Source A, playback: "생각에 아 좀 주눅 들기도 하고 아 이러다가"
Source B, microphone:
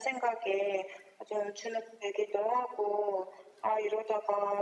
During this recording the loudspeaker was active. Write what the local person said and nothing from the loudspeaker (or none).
none